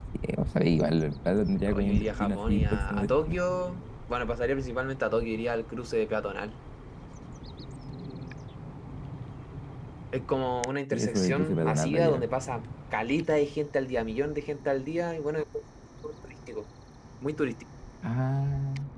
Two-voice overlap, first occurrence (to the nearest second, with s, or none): 2 s